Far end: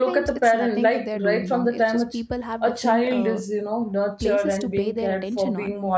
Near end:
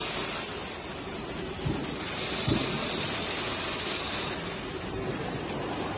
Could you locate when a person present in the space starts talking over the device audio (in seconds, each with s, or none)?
none